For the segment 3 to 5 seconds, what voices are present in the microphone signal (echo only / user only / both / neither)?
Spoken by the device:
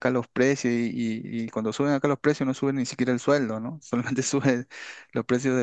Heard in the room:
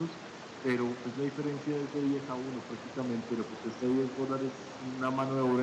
user only